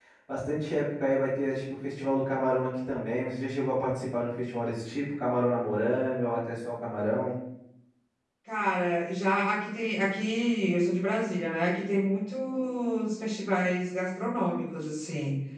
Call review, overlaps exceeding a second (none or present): none